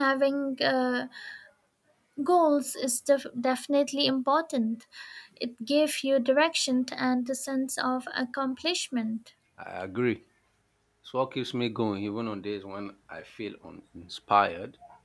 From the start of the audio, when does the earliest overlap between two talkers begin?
none

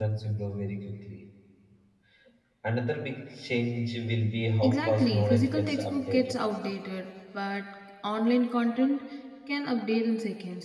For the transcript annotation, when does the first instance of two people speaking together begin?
4.6 s

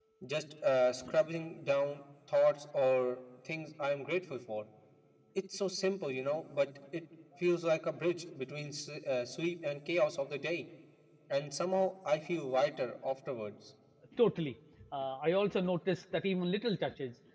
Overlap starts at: none

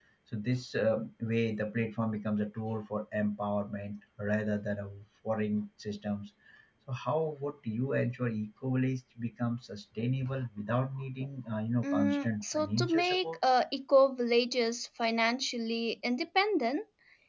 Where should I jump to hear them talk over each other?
11.8 s

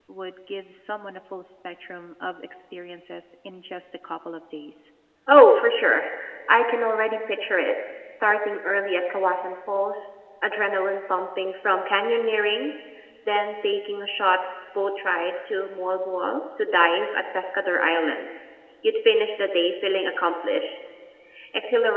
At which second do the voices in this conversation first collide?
none

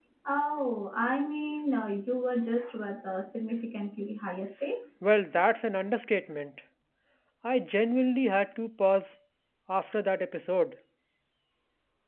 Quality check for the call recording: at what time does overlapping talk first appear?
none

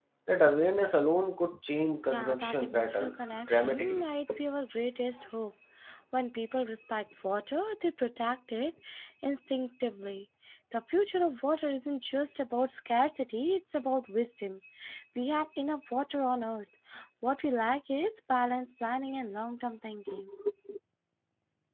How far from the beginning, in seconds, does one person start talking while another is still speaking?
2.1 s

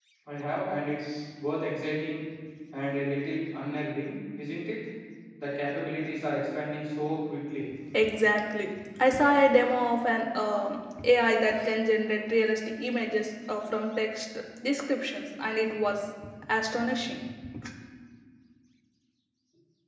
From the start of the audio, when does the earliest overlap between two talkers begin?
none

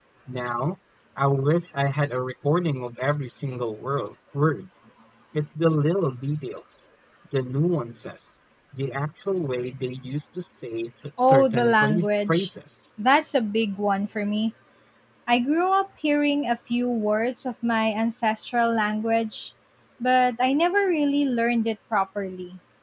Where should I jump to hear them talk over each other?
11.2 s

